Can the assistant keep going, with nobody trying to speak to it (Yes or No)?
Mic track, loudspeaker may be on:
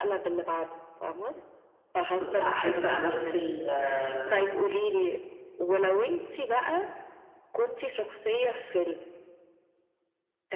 No